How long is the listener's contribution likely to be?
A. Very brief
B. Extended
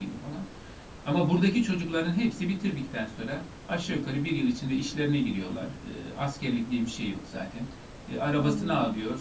A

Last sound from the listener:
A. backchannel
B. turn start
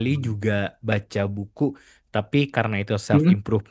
A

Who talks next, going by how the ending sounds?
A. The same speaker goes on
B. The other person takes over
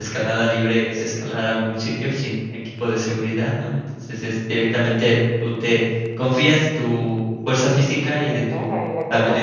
B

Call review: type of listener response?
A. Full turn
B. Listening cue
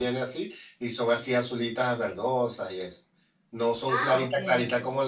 B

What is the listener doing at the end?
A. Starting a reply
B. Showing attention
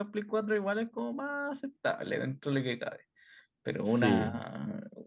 B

